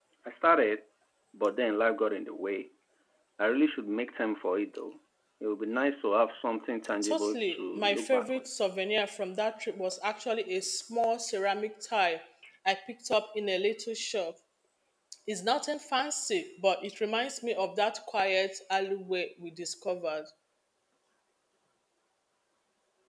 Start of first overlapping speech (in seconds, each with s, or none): 7.0 s